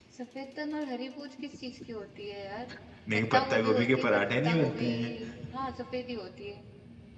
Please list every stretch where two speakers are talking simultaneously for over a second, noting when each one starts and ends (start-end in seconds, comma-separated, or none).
3.3-4.9